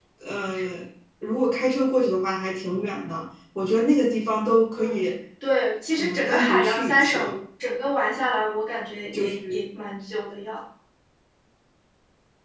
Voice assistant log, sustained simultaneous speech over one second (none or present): present